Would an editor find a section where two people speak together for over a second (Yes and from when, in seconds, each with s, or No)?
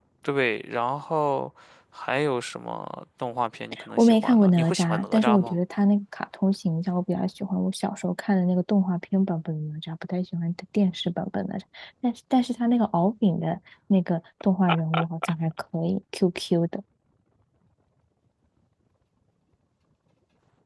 Yes, from 4.0 s